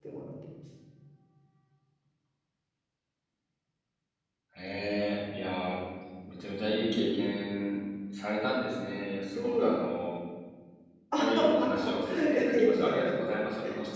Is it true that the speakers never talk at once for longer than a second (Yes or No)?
No